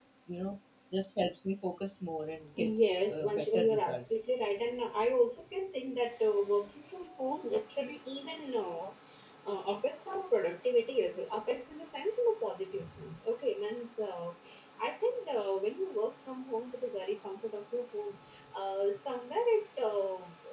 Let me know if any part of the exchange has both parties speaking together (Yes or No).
Yes